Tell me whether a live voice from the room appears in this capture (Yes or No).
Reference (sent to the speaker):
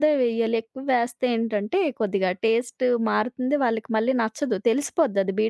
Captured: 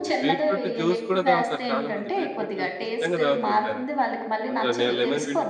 Yes